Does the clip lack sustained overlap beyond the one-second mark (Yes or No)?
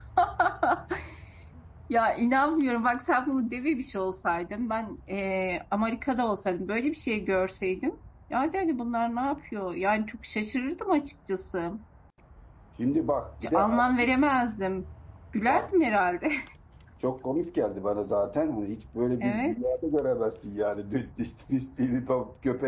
Yes